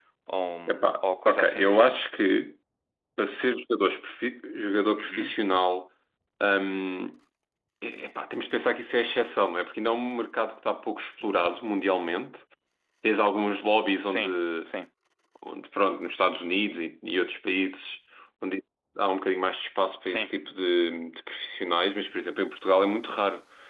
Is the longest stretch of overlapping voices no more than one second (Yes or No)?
No